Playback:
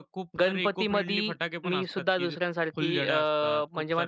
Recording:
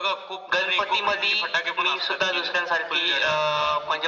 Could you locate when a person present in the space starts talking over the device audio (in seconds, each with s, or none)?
none